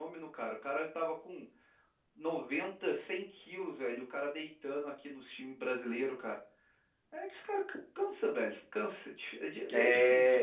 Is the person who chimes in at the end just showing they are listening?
No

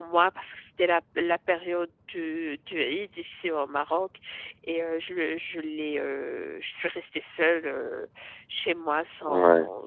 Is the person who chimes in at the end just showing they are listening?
Yes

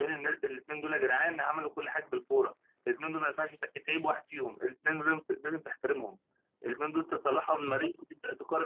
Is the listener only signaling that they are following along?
Yes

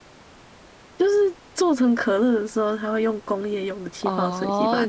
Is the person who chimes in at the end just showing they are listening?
No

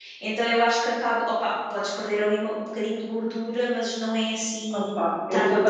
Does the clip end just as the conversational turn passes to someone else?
Yes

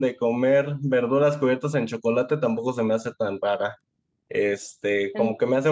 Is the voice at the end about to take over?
No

